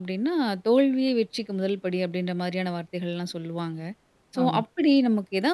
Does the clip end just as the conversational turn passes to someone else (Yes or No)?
No